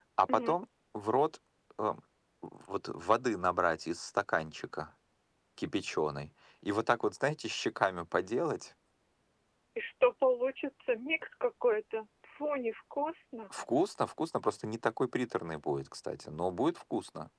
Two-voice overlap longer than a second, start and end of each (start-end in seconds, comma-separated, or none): none